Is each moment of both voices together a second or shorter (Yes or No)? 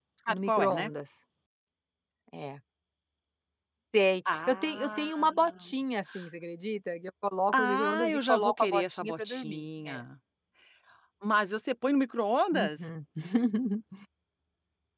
No